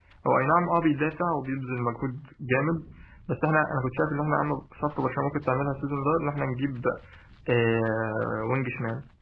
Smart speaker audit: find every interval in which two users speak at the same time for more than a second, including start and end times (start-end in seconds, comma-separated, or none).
none